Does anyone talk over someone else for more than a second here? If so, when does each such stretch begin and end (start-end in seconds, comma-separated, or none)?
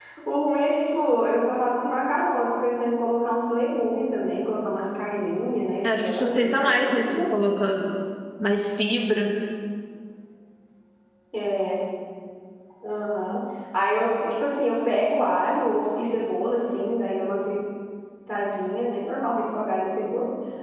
6.0-7.6